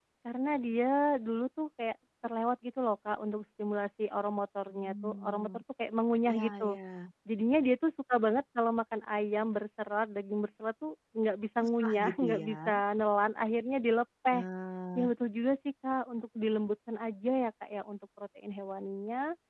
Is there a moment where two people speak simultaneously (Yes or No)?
Yes